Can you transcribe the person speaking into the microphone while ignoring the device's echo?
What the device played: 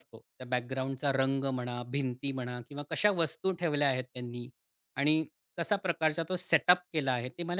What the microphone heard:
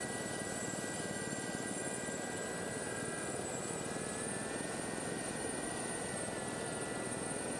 none

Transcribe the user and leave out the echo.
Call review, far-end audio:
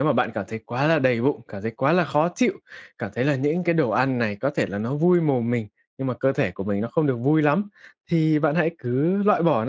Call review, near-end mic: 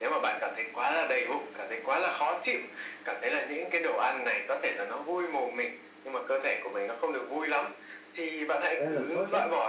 rất là tốt đấy.

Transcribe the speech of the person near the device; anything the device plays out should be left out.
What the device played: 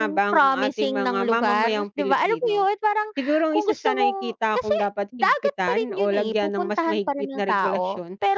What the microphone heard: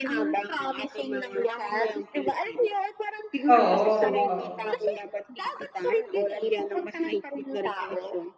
Oo, oo.

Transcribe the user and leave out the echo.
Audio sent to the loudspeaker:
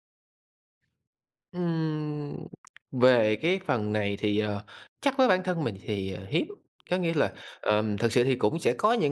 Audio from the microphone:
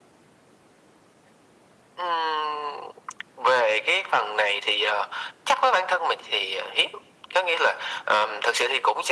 none

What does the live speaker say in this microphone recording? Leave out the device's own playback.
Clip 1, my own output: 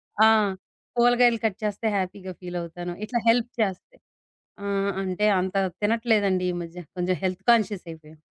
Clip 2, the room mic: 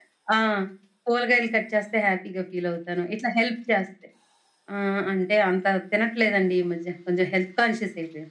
none

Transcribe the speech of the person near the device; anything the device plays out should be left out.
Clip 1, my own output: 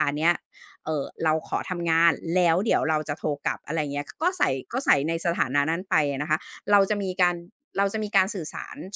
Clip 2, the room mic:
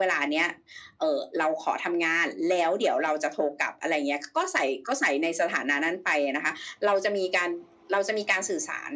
none

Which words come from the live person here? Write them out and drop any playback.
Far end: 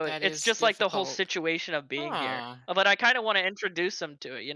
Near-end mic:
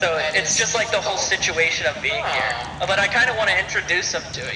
none

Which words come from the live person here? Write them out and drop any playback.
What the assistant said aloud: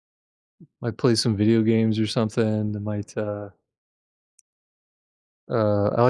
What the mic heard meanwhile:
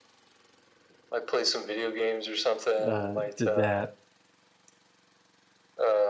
uh, did that.

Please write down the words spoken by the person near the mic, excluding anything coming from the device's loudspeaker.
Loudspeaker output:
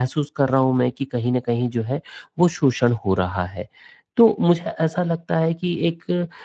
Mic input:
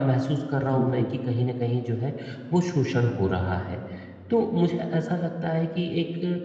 बिल्कुल,

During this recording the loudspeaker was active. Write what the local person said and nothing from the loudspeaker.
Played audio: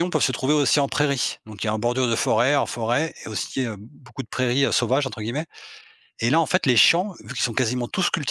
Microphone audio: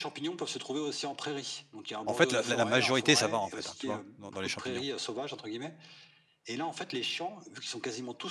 En fait, la la la majorité ça va en fait, hein, tu vois? Dans dans les champignons.

